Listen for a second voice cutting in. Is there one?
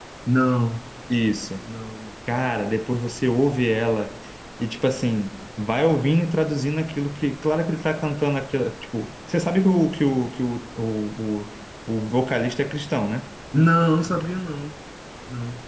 No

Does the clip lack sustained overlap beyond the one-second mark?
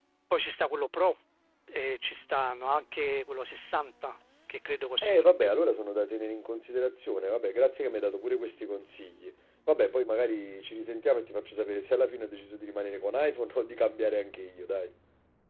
Yes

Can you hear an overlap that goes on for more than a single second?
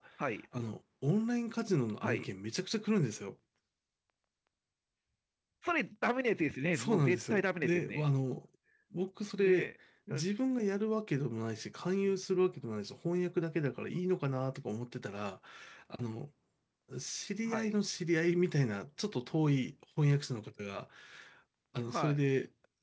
Yes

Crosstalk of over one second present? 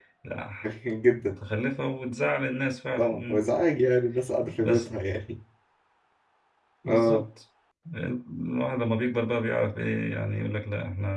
No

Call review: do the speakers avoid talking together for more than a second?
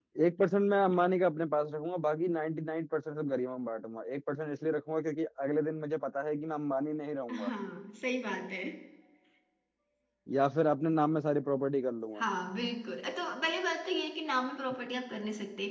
Yes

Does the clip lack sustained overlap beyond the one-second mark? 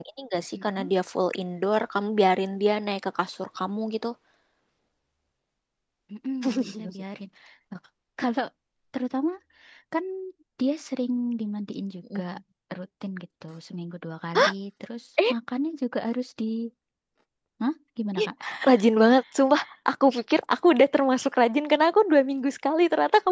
Yes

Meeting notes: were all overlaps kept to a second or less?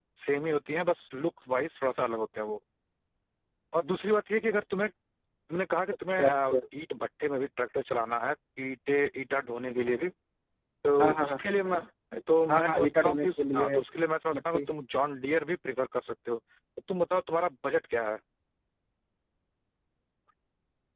No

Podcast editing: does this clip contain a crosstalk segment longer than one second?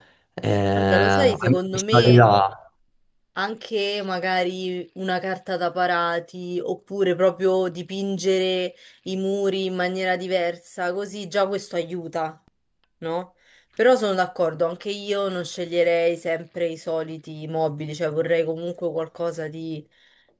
Yes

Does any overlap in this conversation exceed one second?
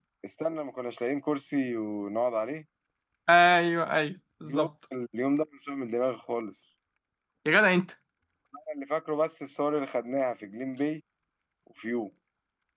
No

